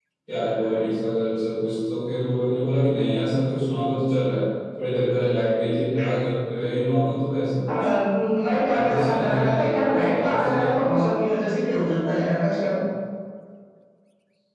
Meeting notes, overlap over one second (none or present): present